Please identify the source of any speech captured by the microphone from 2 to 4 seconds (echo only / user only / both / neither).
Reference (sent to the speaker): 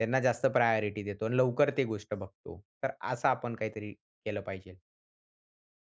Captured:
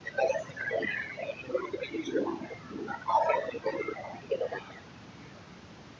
echo only